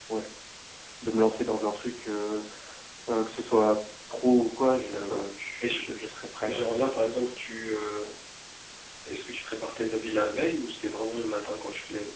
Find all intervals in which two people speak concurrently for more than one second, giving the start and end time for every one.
none

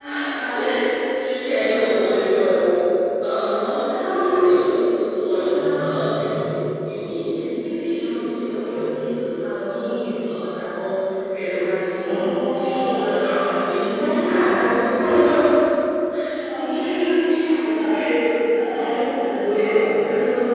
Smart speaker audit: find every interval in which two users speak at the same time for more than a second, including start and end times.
12.0-13.3

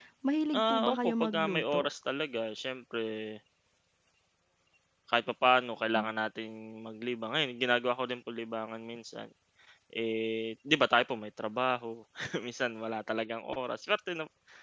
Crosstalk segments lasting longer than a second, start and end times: 0.6-1.8

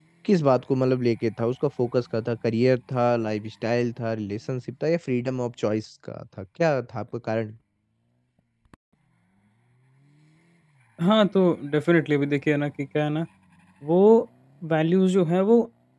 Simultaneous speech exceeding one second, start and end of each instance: none

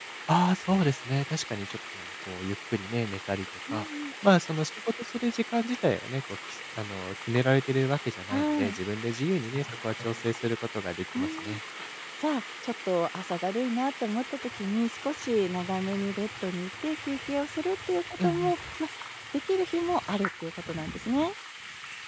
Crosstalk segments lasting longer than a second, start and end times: none

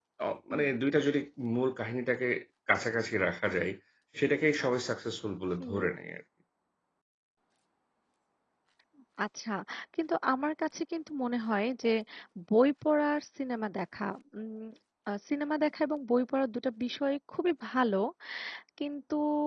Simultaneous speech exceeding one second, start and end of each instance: none

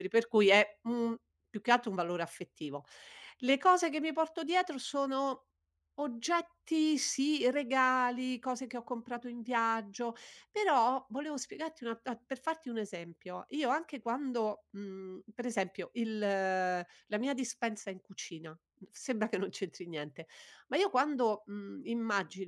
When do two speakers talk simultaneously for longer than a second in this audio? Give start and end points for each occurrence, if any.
none

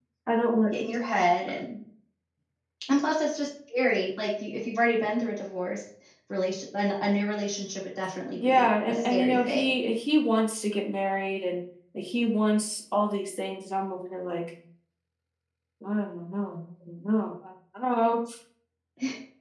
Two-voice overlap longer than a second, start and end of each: 8.4-9.7

